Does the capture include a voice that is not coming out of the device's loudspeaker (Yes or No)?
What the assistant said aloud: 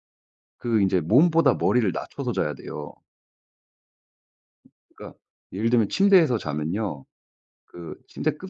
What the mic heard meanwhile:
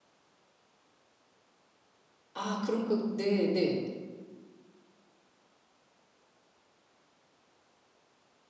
Yes